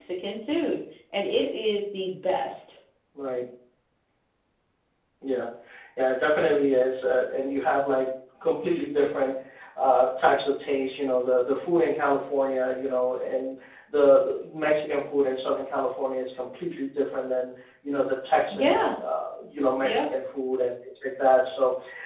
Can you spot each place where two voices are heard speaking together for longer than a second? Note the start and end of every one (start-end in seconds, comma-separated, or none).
none